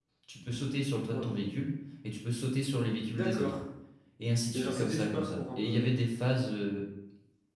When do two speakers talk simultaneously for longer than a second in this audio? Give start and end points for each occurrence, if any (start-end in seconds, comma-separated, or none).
4.5-5.8